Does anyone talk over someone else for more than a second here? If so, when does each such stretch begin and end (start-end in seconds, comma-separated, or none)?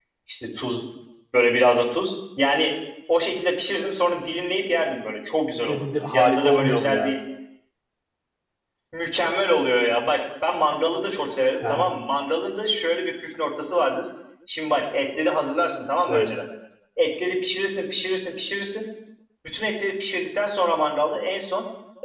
5.7-7.0